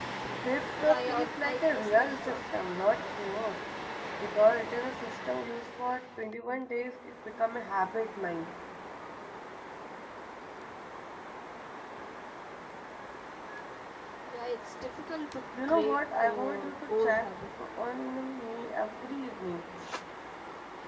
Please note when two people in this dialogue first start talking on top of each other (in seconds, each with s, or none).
0.8 s